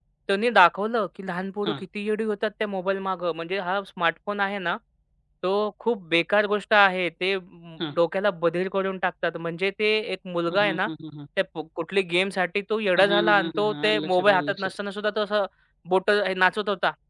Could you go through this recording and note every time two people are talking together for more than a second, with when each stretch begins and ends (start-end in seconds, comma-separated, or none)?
13.0-14.8